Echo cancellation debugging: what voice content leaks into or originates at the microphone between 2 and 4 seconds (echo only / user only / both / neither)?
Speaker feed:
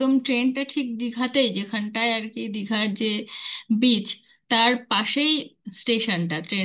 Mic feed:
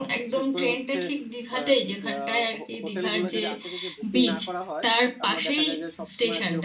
both